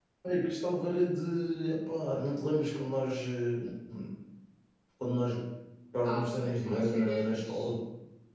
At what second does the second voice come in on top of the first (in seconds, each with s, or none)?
6.0 s